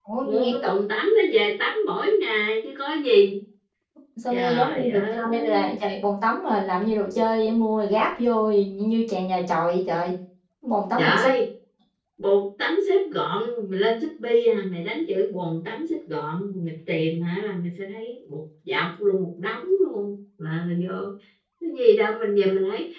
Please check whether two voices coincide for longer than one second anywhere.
Yes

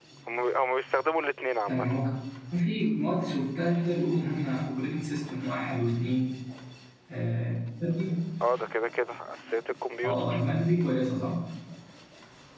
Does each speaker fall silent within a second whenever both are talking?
Yes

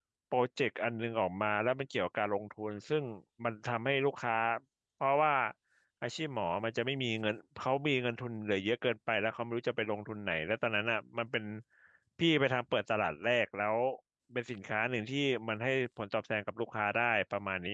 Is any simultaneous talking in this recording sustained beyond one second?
No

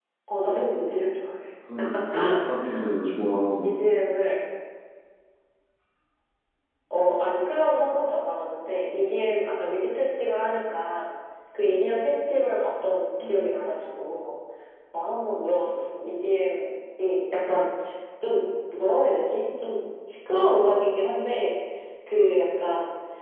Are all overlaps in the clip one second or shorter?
Yes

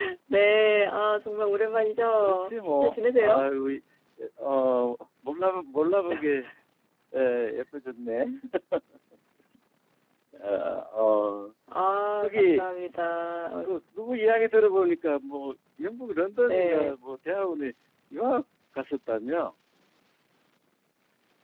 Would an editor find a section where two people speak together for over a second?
Yes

